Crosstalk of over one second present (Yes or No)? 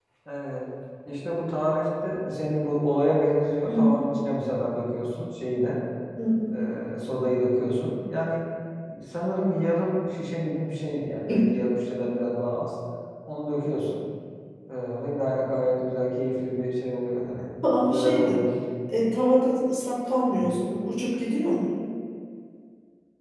No